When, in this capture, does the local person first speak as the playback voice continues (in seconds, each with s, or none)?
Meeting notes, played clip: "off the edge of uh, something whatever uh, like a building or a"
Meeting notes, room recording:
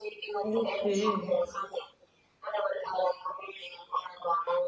0.4 s